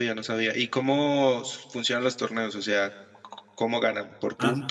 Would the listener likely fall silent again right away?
No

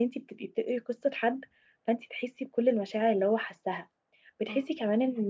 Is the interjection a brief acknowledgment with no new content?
Yes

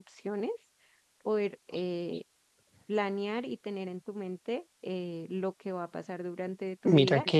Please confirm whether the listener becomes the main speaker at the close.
Yes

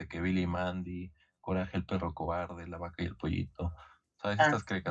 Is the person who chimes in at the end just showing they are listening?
Yes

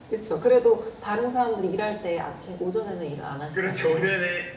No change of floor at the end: No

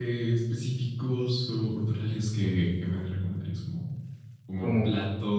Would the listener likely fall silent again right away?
Yes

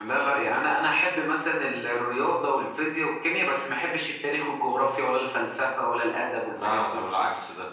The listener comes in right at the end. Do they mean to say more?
Yes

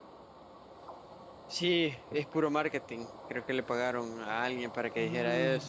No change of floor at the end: No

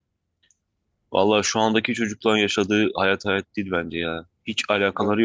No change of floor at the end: Yes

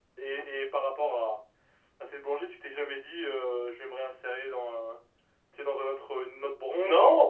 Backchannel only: No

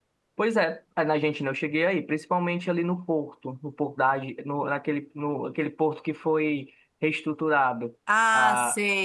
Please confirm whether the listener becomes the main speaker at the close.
Yes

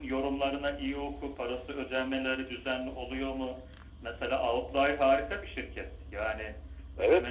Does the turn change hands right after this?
Yes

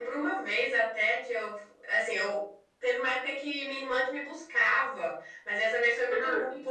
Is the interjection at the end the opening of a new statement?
No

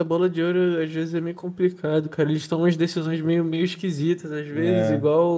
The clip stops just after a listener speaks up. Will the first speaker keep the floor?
Yes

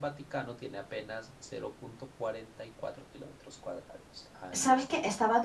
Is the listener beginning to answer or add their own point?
Yes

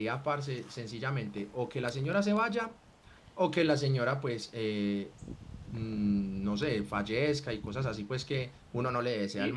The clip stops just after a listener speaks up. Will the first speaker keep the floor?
No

